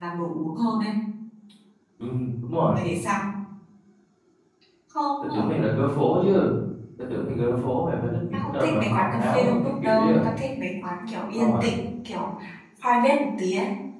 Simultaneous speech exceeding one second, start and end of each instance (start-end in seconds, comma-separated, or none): 8.3-10.2